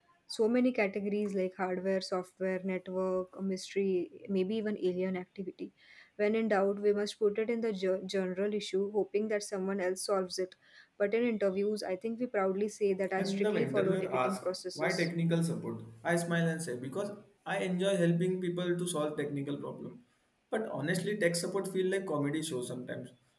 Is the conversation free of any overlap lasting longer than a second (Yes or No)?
No